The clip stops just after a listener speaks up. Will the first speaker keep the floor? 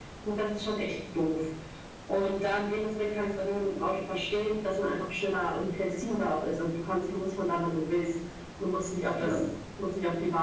Yes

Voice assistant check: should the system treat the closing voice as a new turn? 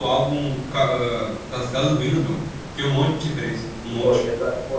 Yes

